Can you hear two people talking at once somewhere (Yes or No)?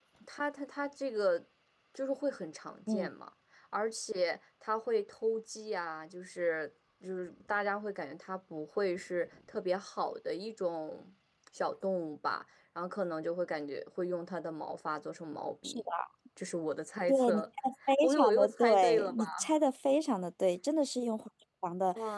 Yes